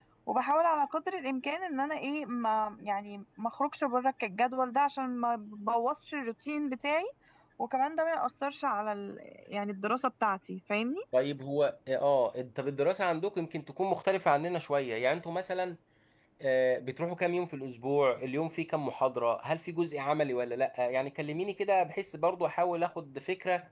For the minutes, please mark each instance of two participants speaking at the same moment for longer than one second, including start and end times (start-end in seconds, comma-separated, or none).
none